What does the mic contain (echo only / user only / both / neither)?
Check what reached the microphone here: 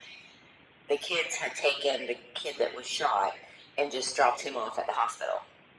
echo only